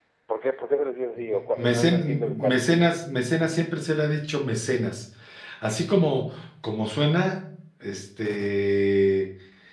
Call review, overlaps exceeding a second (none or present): present